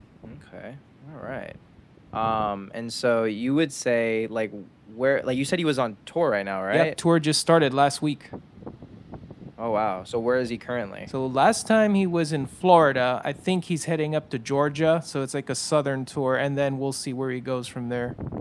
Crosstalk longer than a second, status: none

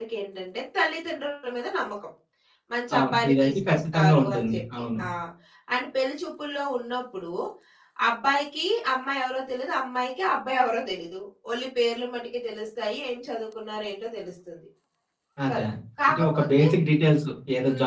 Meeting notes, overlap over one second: present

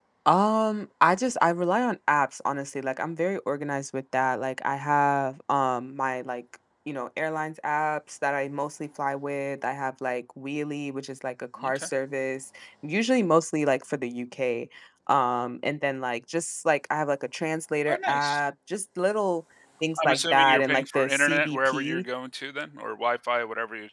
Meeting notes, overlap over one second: present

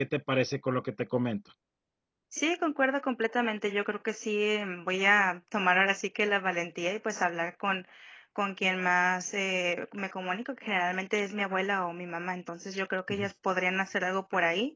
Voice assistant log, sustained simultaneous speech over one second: none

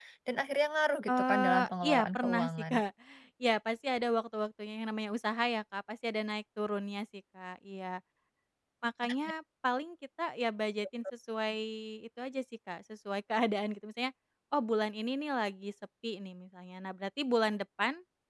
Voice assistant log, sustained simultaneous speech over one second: present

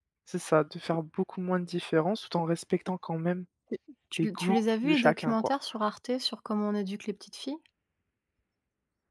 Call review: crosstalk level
present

